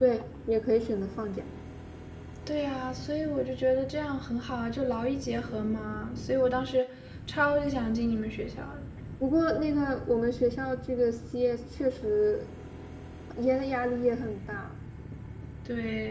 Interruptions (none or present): none